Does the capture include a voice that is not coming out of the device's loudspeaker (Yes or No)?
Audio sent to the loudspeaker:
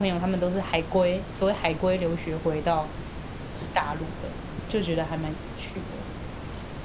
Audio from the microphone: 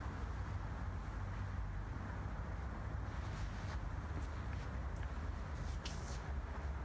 No